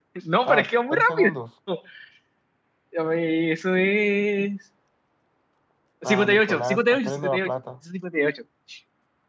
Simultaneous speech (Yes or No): Yes